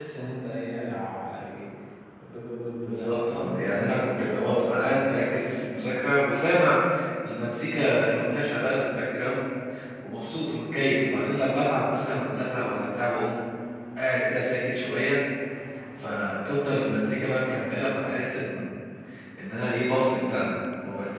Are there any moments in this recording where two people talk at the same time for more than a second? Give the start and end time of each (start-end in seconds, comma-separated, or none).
2.9-4.6